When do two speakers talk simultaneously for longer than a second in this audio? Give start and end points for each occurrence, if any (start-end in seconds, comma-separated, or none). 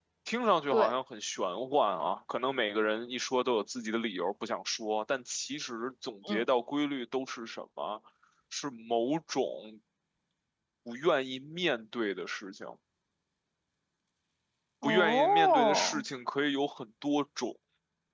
14.8-16.0